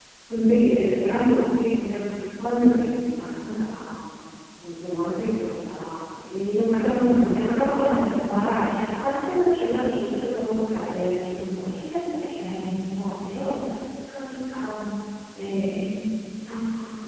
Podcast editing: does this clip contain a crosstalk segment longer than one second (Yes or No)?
Yes